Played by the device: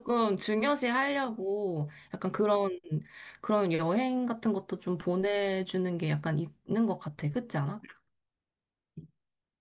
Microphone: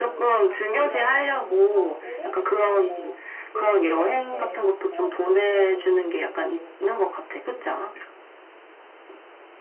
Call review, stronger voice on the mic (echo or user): echo